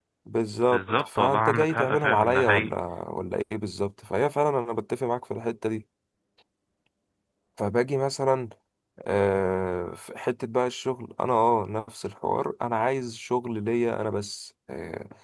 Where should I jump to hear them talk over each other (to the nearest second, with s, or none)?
1 s